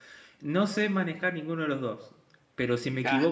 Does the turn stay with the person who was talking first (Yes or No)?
Yes